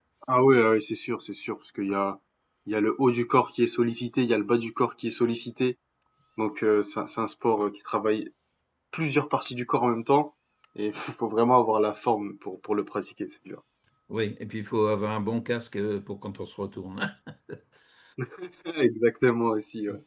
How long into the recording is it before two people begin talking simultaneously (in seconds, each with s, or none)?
none